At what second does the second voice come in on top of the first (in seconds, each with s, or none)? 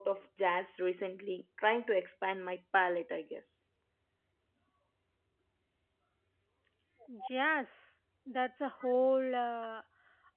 none